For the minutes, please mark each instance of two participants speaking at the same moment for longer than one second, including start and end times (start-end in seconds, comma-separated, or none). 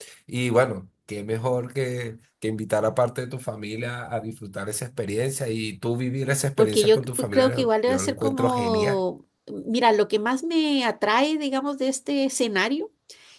6.6-9.0